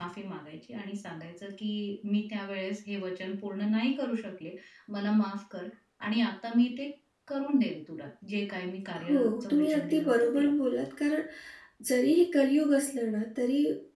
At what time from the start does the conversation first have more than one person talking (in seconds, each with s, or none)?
8.9 s